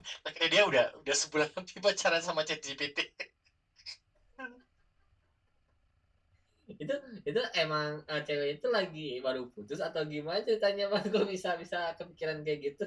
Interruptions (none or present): none